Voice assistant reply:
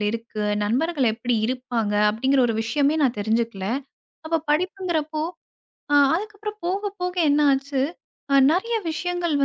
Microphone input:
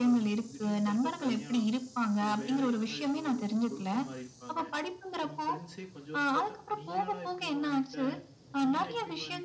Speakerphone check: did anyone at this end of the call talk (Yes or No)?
Yes